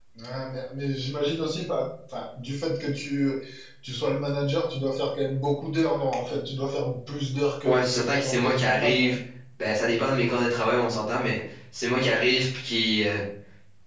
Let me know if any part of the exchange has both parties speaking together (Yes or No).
Yes